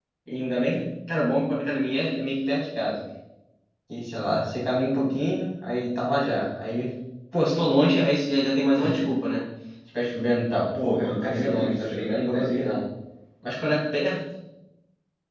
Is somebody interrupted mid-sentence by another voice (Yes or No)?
Yes